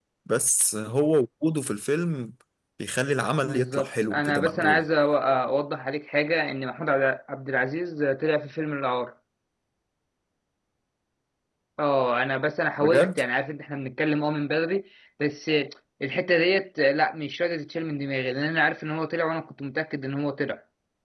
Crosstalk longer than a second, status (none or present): present